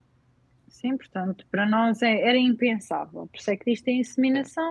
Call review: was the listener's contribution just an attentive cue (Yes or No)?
Yes